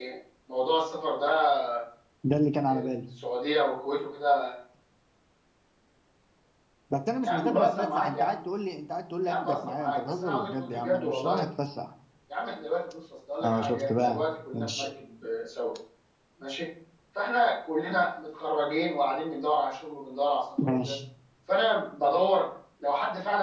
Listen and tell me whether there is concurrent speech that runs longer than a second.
Yes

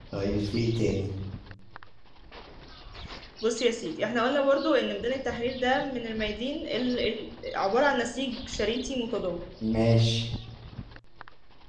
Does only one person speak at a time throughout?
Yes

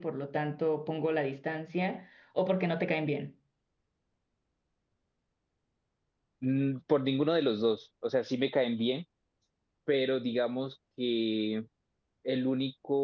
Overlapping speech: No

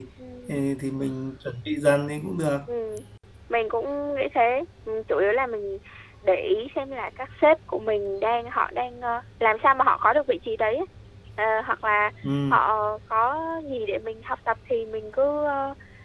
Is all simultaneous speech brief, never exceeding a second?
Yes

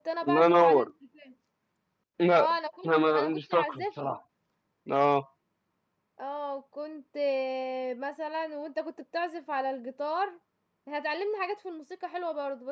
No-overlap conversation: No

